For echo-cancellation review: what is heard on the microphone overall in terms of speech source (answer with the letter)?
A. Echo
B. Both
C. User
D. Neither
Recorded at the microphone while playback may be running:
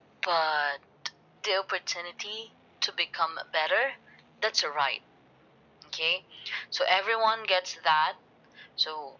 A